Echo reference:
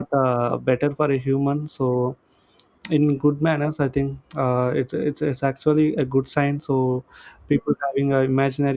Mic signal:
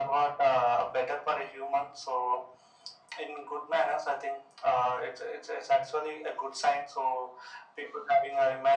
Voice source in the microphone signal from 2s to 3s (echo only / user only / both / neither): echo only